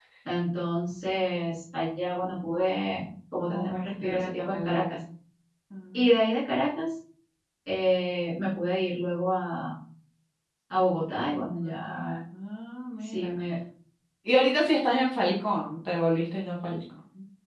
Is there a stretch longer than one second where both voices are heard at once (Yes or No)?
Yes